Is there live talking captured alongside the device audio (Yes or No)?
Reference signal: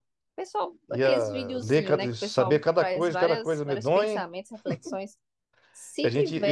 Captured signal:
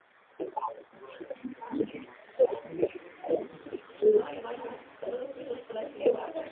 Yes